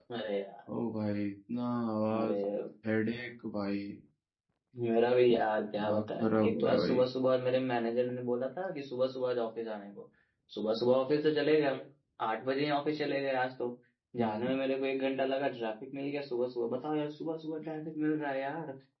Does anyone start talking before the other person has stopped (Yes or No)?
Yes